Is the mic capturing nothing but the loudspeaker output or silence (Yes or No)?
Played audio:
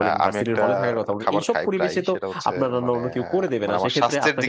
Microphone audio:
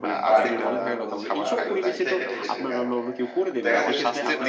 No